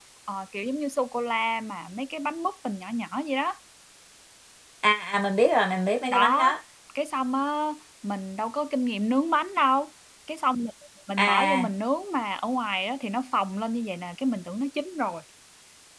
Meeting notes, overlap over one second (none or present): none